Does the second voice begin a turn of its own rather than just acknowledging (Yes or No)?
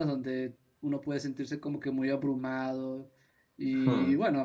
No